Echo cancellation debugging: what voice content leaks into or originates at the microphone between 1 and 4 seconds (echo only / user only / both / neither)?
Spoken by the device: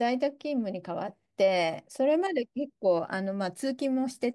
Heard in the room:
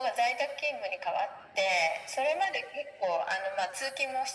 echo only